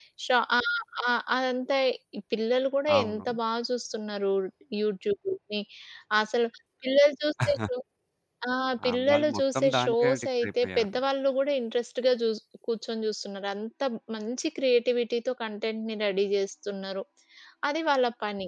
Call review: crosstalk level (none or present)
present